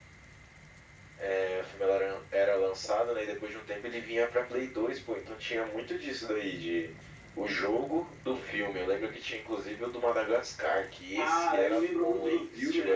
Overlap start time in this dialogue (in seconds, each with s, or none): 11.1 s